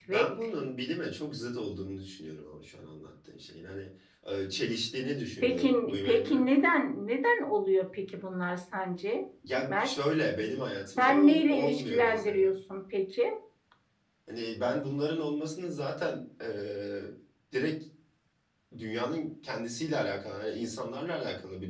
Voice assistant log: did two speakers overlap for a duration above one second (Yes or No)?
Yes